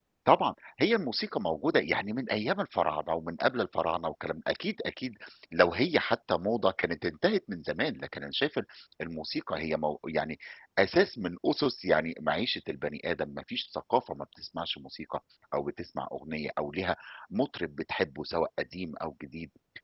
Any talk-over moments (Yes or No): No